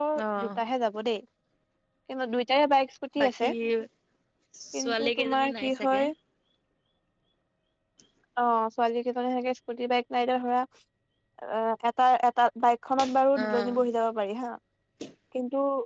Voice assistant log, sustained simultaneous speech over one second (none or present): present